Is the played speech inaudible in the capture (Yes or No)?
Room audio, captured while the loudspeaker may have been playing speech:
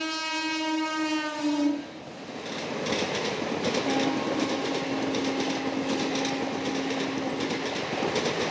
Yes